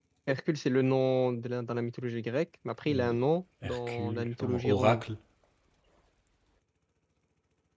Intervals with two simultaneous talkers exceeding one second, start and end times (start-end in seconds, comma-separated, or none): 3.6-5.0